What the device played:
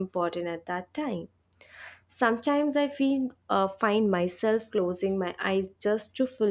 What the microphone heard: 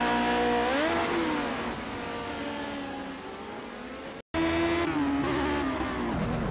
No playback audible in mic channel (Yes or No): Yes